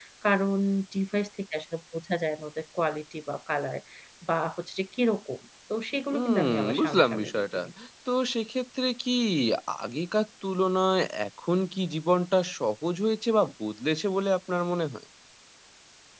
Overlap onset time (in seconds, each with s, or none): 6.1 s